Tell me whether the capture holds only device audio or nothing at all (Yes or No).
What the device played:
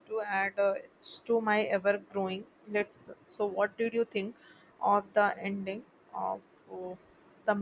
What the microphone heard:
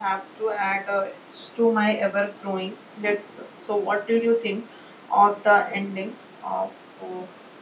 Yes